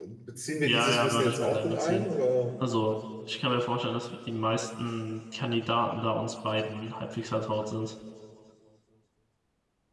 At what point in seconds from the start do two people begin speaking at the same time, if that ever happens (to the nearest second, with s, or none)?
1 s